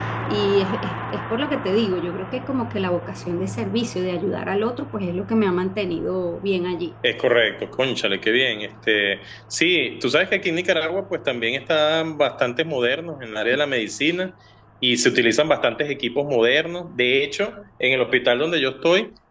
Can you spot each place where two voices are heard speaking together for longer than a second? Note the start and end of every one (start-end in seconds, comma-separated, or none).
none